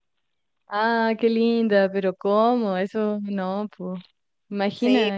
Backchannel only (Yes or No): No